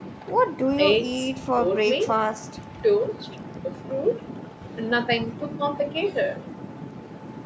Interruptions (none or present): present